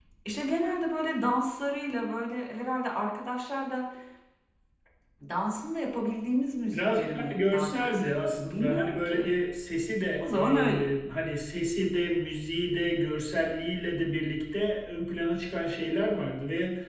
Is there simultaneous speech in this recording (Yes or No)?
Yes